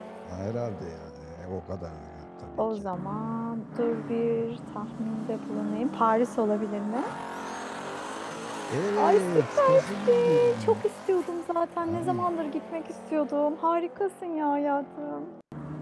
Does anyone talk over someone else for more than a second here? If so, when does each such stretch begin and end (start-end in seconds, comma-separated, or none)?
8.9-10.9